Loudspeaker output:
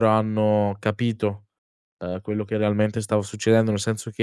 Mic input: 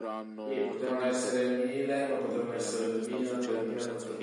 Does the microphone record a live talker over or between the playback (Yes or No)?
Yes